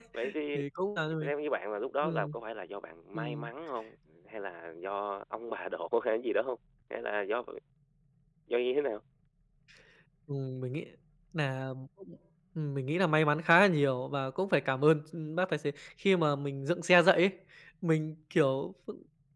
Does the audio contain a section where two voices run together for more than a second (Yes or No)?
No